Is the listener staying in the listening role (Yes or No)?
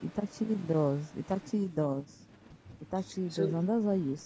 Yes